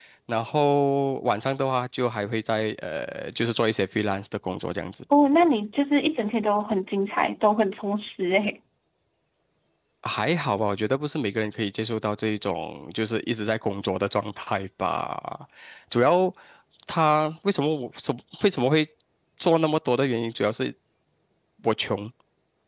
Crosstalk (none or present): none